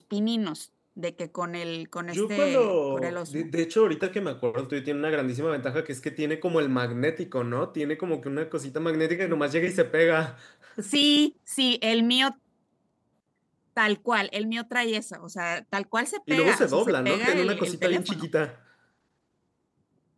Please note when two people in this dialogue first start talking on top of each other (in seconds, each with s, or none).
2.1 s